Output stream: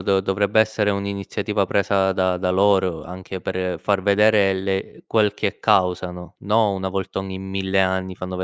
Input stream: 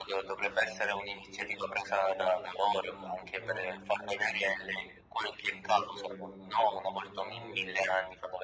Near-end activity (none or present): present